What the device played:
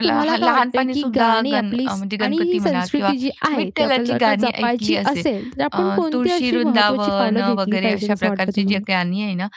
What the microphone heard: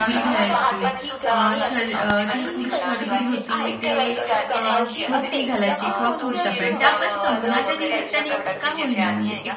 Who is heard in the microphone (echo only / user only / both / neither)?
both